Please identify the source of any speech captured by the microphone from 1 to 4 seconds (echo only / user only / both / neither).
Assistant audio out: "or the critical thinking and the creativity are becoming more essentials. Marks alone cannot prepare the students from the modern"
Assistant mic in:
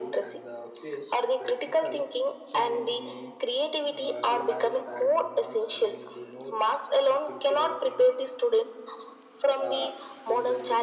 both